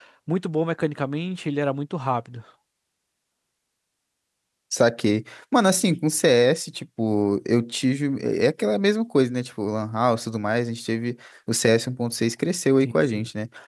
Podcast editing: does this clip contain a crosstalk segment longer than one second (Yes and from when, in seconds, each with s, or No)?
No